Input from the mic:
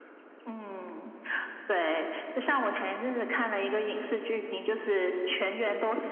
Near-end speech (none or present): none